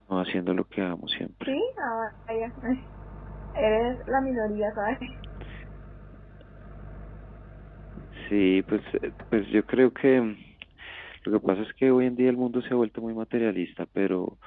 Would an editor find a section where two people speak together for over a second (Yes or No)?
No